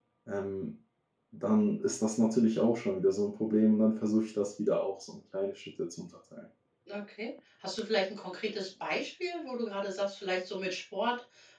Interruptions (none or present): none